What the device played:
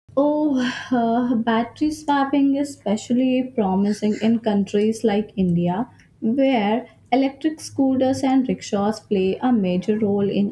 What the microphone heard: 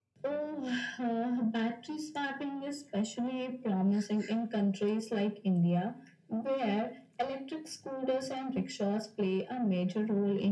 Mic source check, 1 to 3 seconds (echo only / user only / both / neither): echo only